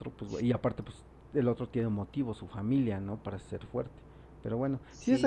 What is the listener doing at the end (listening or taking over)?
listening